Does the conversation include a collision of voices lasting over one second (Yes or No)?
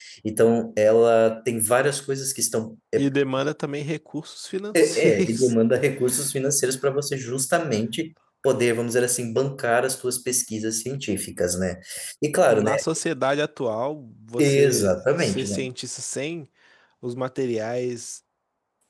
Yes